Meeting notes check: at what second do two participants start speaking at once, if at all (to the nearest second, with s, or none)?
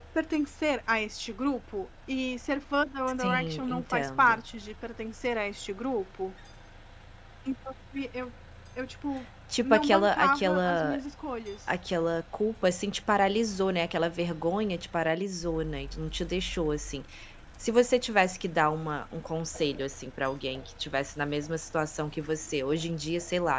3 s